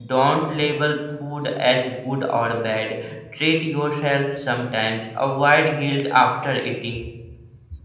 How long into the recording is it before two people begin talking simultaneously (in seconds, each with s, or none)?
none